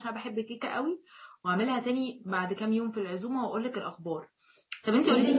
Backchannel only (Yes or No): Yes